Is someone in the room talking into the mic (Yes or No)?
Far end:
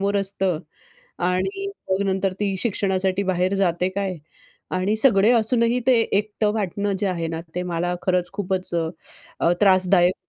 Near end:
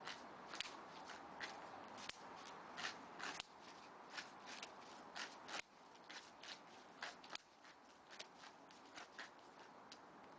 No